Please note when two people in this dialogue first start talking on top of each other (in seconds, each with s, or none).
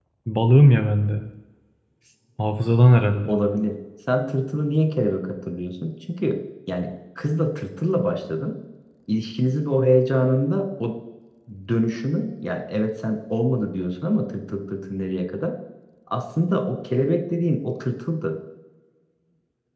none